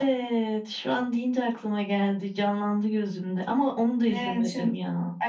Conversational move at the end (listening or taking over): taking over